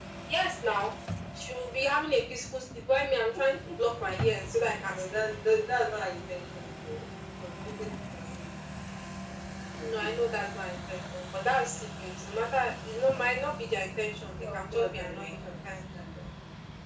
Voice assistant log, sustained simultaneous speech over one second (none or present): present